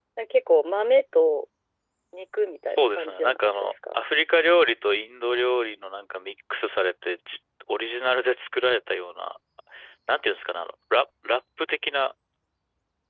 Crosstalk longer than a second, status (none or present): present